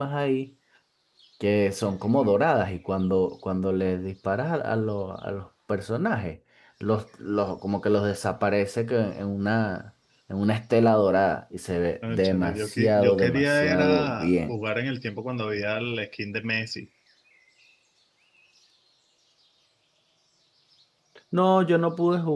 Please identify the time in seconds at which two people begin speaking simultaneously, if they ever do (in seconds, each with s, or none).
12.0 s